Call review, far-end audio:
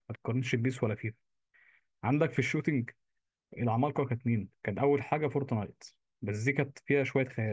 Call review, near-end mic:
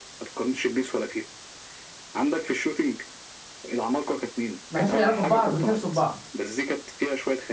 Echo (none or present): present